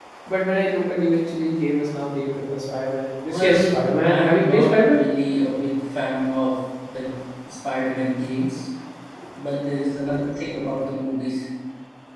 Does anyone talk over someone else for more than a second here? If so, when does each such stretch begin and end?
3.2-5.0

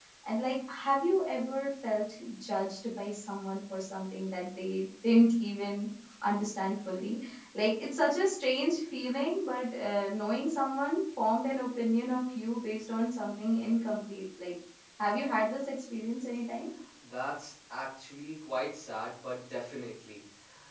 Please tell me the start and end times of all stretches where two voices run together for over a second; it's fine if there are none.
none

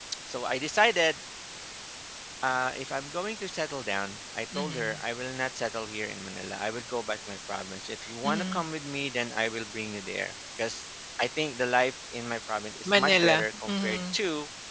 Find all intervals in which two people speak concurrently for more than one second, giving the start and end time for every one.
12.9-14.1

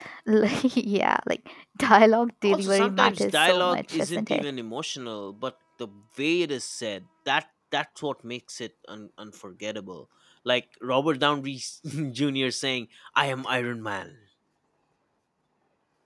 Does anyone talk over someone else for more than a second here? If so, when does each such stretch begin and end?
2.4-4.4

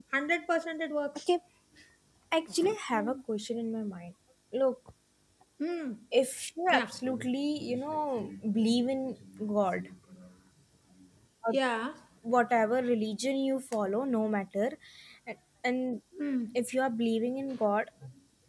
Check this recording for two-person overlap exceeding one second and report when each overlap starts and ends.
none

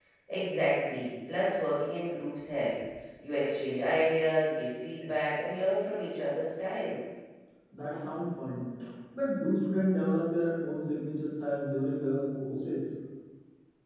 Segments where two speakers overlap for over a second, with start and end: none

